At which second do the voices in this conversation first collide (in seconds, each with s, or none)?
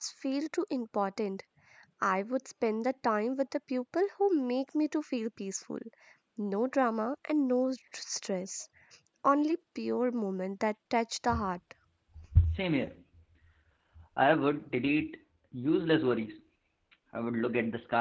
none